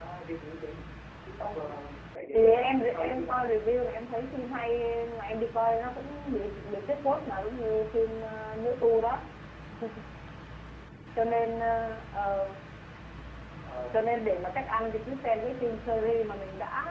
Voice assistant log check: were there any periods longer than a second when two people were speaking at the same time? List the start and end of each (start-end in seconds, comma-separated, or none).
2.3-3.5